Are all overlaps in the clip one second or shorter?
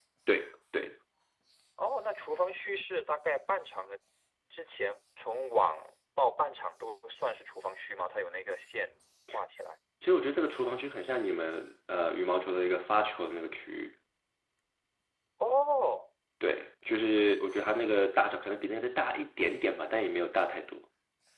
Yes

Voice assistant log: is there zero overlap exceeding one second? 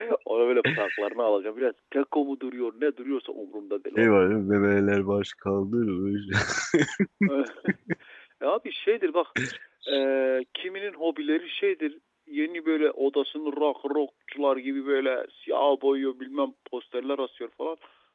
Yes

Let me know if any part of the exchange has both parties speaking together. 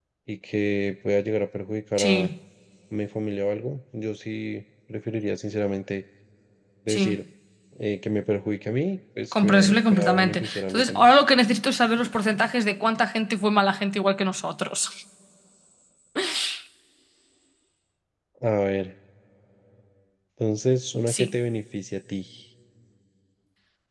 Yes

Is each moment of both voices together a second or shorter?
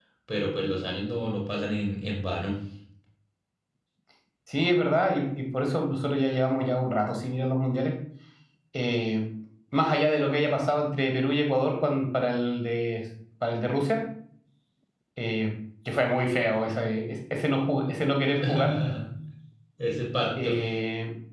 Yes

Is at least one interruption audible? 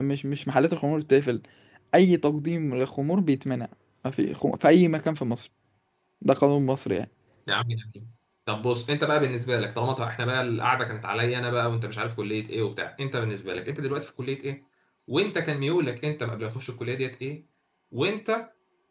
No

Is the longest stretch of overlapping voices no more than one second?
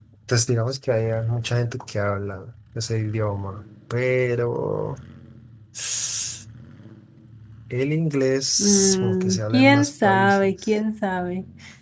No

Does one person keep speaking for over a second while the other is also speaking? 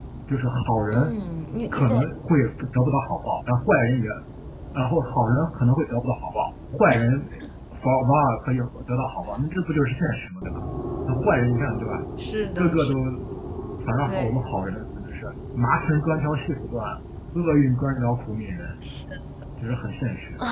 No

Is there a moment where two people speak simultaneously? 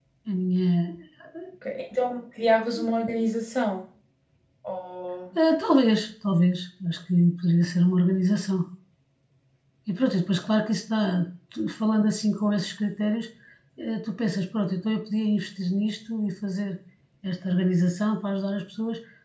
No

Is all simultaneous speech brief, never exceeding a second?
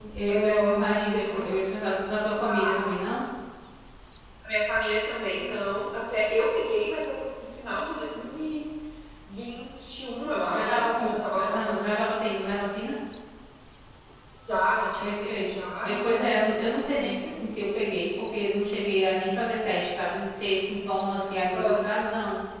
No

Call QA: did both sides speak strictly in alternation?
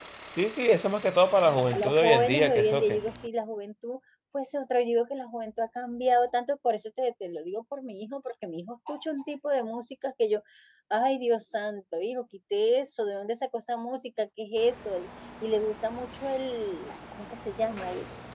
No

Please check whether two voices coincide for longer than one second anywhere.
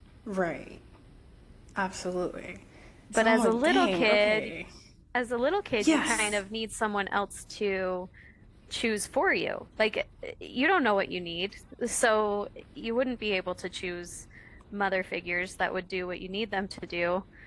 Yes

